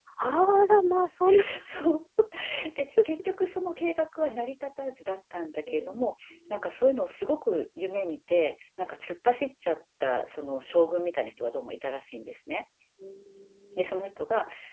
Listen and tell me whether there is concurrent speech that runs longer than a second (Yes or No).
No